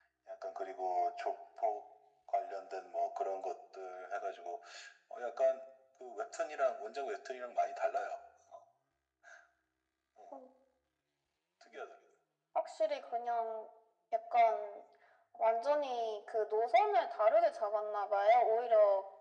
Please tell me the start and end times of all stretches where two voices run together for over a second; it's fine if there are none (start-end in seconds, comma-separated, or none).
none